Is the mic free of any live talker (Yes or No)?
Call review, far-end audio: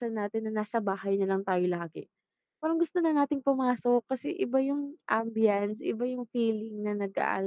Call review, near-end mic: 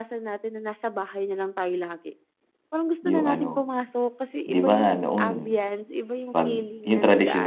No